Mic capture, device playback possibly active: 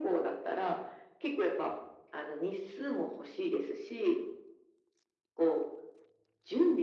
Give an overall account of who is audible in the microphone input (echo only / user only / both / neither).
echo only